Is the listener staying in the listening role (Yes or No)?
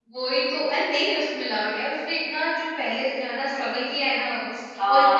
No